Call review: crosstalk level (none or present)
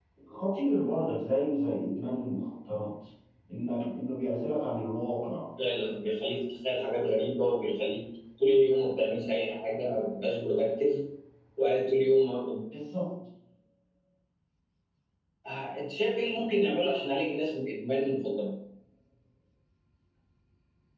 none